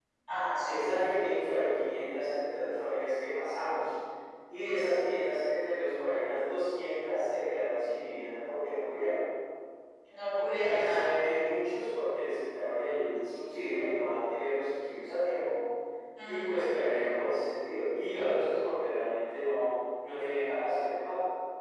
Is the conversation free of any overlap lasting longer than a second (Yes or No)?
Yes